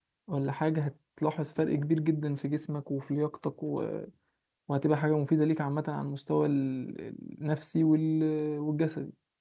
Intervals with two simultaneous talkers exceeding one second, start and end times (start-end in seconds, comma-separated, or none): none